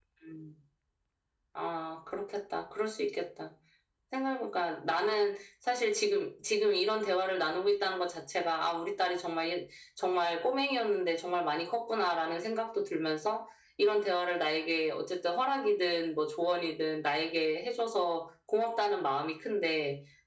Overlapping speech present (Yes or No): No